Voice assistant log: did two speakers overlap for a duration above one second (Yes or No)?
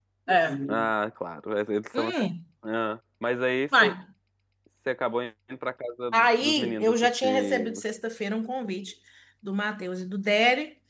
Yes